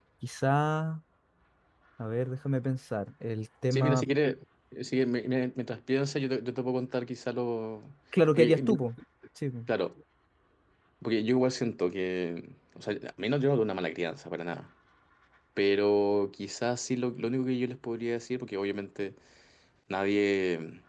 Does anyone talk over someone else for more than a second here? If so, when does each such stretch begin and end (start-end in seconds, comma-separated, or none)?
none